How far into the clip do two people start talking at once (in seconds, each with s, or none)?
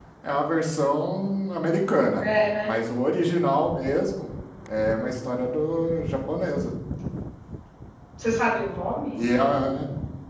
none